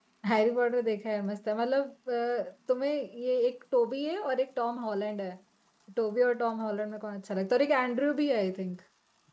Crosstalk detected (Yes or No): No